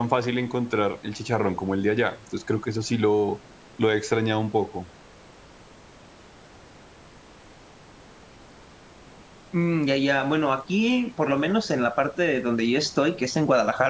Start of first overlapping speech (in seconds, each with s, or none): none